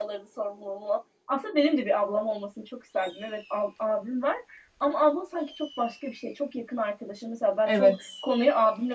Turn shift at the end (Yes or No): No